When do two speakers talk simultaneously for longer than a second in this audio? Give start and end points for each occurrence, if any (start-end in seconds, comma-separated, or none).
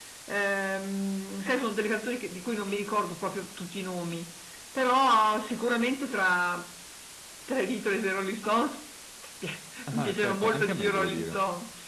9.9-11.4